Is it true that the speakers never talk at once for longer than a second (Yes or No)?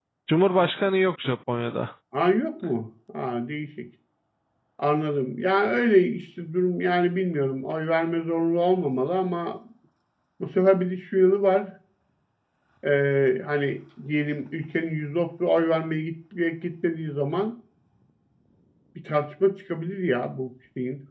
Yes